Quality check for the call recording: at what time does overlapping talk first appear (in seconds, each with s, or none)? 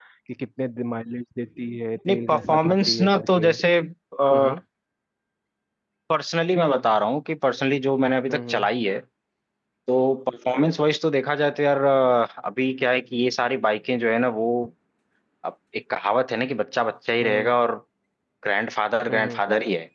2.1 s